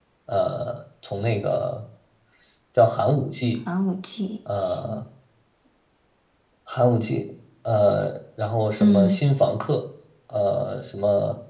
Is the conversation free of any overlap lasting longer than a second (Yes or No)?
Yes